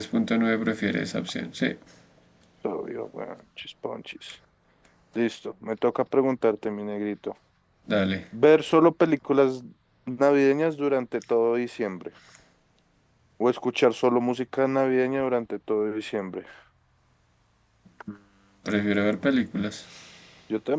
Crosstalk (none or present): none